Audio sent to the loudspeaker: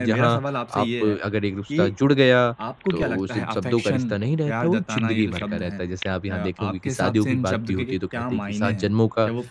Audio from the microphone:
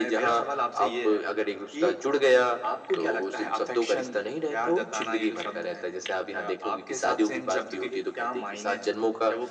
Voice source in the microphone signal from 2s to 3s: echo only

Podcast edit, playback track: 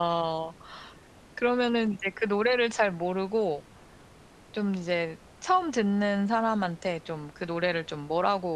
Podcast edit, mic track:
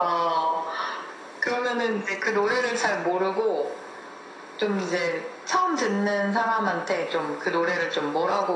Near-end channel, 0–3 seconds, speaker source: echo only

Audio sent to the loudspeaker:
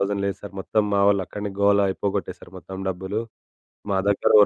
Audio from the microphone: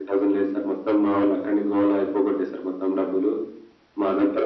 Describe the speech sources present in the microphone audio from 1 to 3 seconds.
echo only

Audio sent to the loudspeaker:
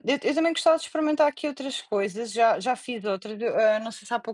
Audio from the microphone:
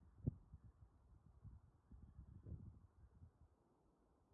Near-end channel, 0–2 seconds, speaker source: neither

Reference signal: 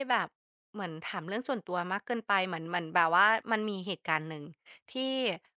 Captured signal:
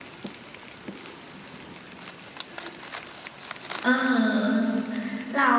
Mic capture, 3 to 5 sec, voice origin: user only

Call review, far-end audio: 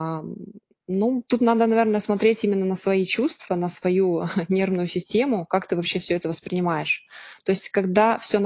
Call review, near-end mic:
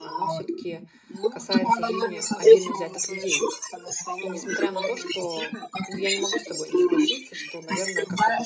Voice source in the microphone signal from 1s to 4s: both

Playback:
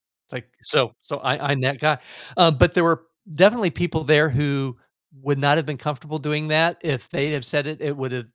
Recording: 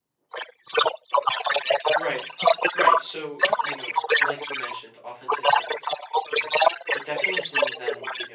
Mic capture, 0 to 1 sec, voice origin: echo only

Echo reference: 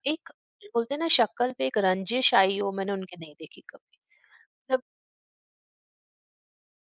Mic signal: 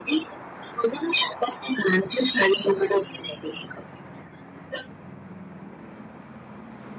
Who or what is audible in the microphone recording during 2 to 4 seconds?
echo only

